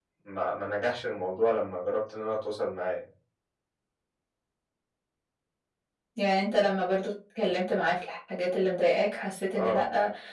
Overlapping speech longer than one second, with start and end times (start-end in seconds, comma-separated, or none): none